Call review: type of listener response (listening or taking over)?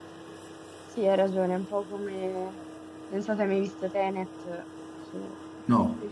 listening